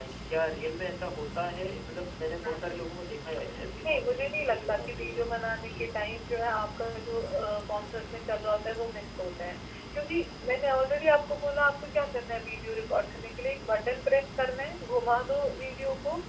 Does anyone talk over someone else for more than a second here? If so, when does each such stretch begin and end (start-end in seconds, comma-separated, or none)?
3.9-5.2